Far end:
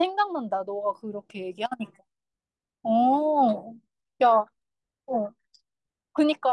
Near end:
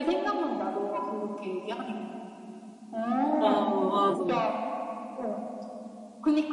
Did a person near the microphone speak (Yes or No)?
Yes